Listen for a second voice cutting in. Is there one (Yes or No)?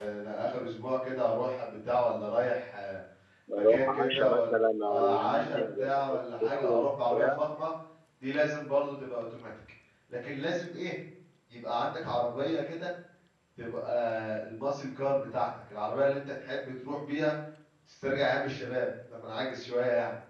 Yes